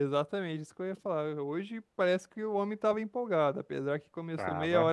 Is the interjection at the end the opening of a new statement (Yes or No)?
No